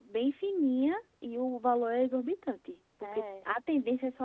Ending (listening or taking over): listening